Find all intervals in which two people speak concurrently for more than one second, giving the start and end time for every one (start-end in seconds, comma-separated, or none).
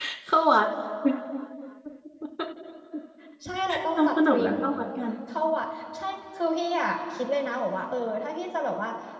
none